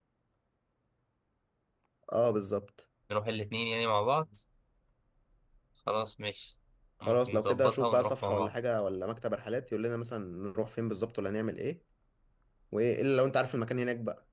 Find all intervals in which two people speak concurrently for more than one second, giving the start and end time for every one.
7.0-8.5

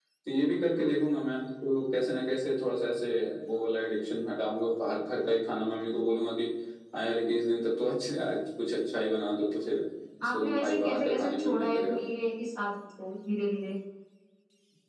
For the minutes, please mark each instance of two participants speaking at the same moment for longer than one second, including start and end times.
10.2-12.0

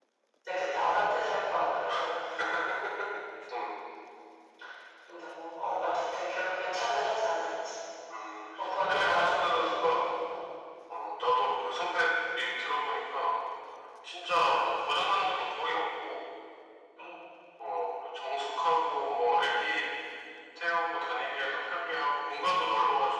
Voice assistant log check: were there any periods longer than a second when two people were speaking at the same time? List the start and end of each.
8.8-10.0

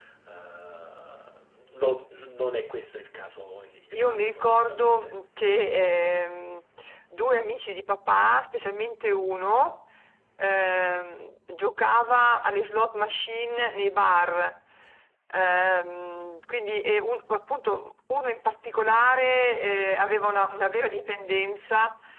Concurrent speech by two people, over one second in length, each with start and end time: 3.9-5.2

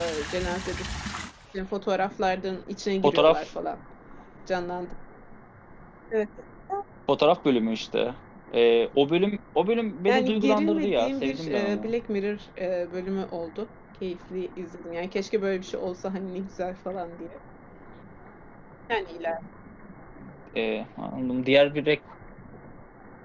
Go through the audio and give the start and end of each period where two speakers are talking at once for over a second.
10.1-11.9

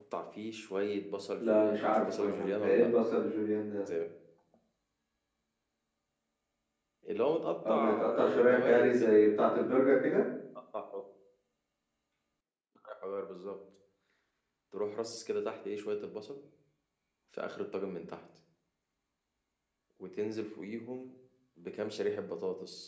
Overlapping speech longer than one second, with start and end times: 1.4-2.9, 7.7-9.1

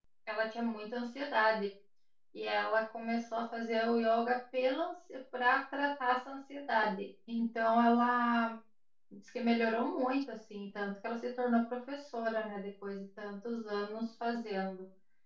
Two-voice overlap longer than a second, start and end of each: none

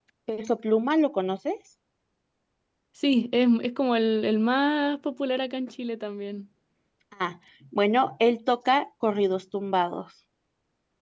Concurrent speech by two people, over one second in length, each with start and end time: none

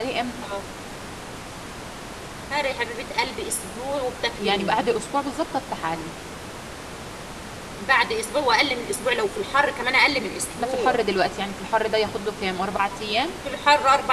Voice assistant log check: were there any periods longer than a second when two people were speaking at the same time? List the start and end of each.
none

